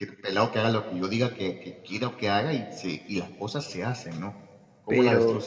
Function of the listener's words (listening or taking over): taking over